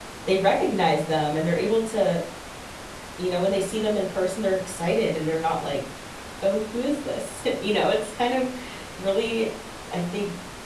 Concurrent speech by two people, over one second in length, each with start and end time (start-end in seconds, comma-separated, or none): none